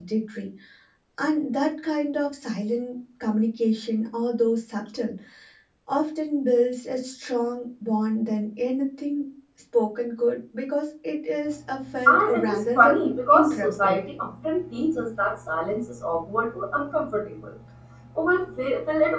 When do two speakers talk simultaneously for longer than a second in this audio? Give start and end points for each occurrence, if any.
12.1-14.0

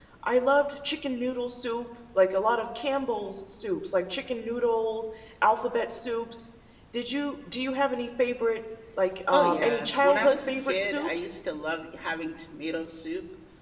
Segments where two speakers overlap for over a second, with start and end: 9.3-11.4

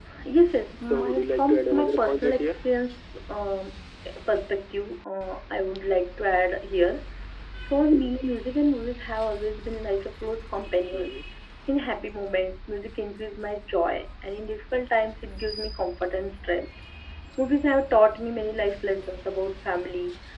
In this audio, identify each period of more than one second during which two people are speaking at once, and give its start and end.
0.8-2.5

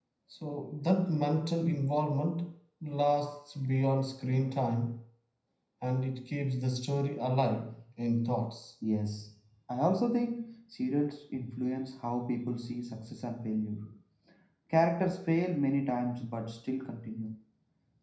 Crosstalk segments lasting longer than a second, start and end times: none

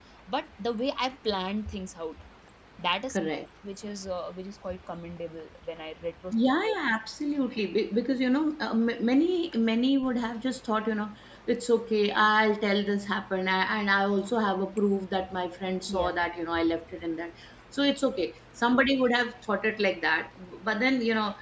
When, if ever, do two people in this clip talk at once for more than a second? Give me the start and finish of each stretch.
none

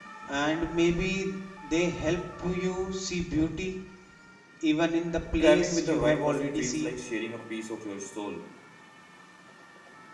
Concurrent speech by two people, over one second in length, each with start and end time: 5.4-7.0

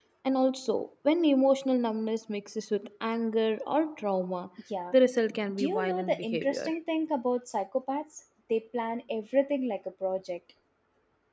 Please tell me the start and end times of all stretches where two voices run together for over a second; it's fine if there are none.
5.5-6.7

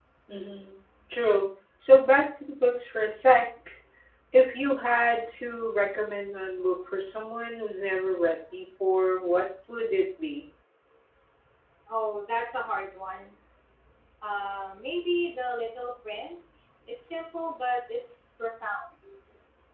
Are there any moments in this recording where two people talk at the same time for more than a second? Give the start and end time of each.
none

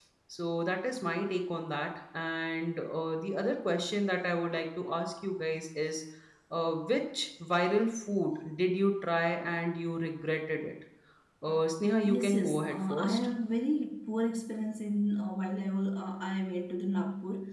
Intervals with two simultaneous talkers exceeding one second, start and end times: 12.1-13.3

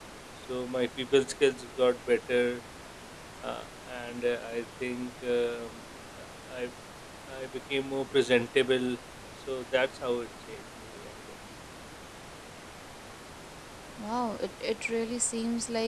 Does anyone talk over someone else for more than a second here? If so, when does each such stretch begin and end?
none

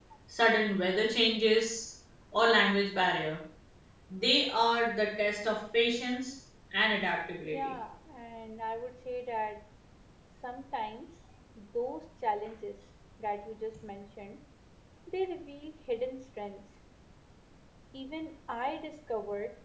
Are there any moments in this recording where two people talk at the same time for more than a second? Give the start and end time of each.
none

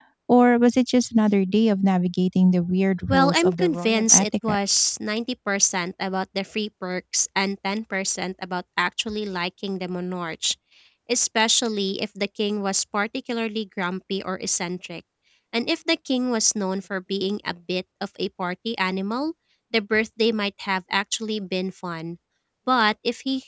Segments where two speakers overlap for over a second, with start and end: 3.1-4.6

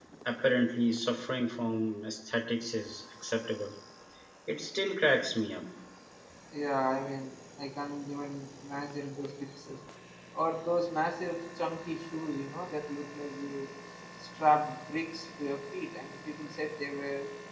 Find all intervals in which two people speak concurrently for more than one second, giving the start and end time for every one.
none

